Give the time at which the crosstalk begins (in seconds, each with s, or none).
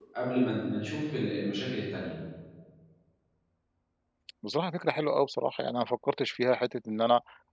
none